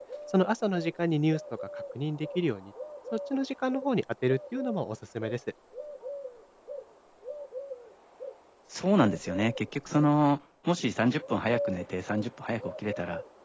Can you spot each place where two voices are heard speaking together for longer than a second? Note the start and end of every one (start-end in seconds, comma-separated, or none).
none